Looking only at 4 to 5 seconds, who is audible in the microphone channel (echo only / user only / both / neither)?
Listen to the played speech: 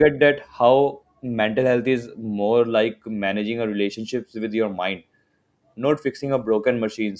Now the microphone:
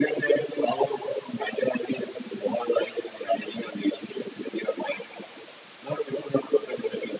echo only